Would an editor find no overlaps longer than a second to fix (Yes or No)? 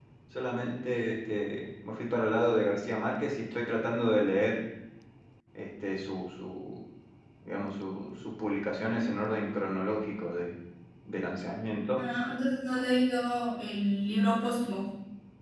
Yes